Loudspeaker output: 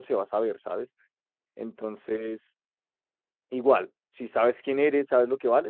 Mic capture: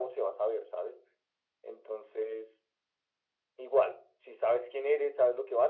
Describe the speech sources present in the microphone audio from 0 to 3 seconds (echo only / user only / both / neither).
echo only